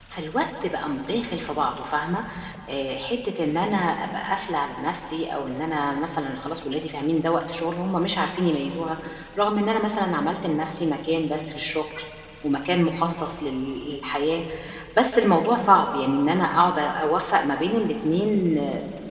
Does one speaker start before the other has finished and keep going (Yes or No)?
No